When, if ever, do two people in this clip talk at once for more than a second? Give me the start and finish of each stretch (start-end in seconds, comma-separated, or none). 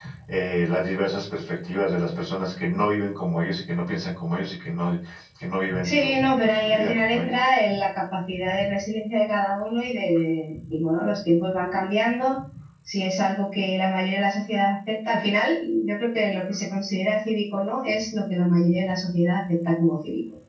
5.8-7.3